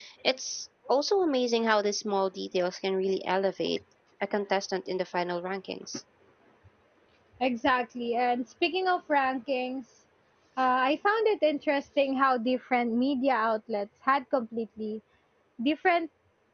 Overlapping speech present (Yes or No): No